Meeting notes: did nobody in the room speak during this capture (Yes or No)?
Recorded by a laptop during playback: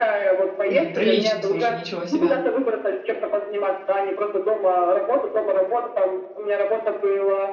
No